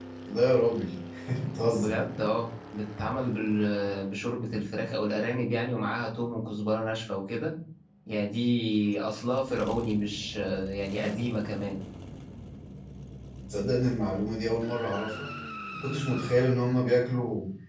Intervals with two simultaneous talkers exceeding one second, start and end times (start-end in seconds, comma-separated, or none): none